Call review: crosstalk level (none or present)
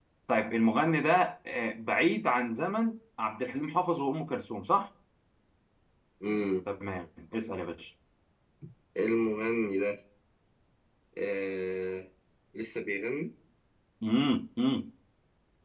none